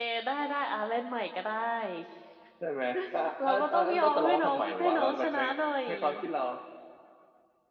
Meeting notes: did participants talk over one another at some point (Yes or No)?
Yes